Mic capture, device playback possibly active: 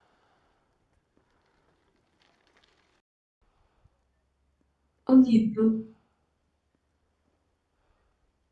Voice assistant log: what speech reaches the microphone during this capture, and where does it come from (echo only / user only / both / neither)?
user only